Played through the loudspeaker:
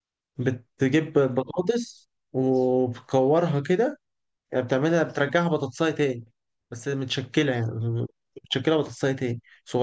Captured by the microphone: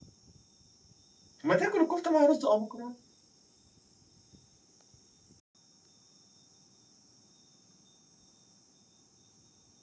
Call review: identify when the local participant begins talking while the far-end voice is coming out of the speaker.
1.4 s

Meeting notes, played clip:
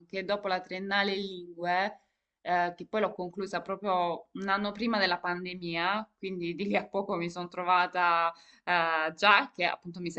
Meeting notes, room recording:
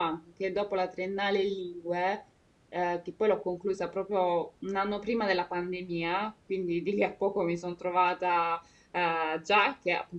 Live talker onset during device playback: none

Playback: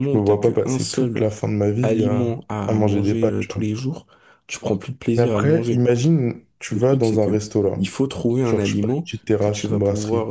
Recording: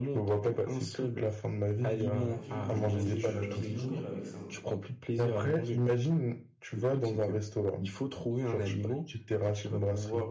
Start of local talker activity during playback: 2.1 s

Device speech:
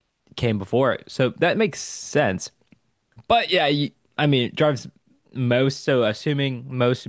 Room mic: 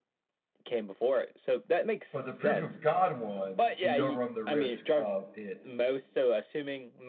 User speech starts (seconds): 2.1 s

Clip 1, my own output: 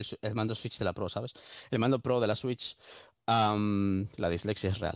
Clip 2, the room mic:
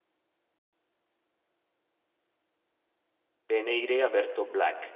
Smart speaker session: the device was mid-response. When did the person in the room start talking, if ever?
3.5 s

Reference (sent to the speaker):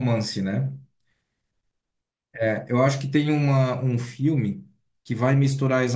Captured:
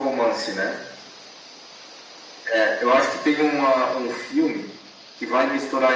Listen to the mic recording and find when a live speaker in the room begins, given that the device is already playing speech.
none

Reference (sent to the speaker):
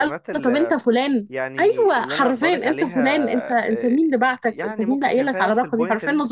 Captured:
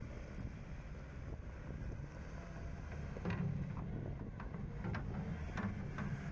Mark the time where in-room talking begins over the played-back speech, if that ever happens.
none

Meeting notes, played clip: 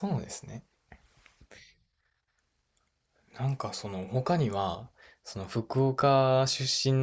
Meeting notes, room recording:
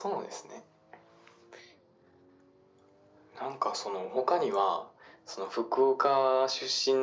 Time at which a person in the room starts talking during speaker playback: none

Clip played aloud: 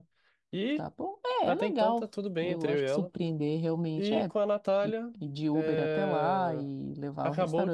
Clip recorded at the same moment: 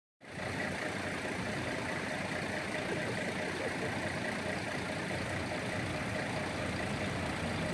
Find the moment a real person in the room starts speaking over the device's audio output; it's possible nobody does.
none

